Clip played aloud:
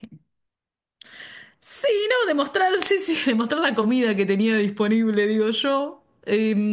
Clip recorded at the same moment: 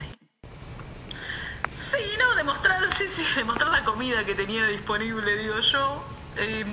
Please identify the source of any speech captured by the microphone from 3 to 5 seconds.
echo only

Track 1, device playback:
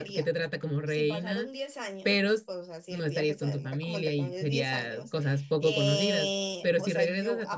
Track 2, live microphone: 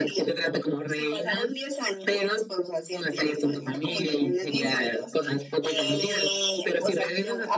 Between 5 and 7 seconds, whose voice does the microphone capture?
echo only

